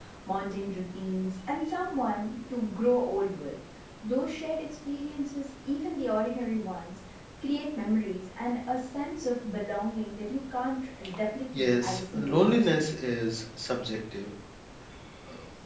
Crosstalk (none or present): present